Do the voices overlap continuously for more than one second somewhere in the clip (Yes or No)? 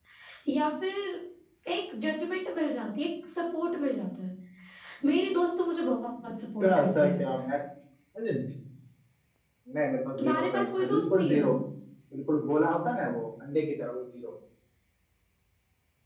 Yes